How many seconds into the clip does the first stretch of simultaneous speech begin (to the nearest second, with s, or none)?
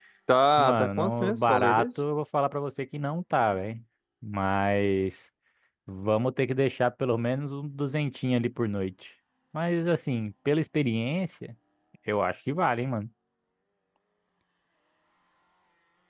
1 s